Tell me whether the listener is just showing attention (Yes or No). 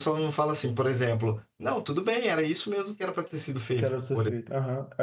No